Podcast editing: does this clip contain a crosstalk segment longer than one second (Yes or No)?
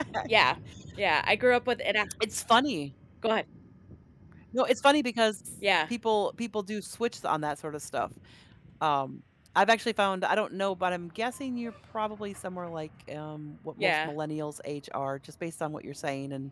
No